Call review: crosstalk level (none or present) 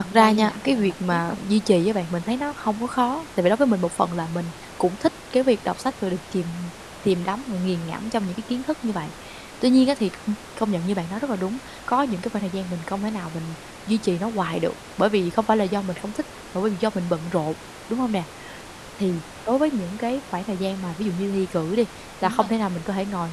present